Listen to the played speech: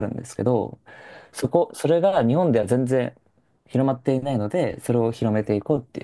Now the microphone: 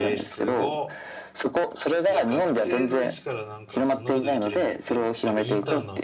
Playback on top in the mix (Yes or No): Yes